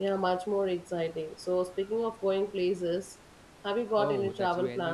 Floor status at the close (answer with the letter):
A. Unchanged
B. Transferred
B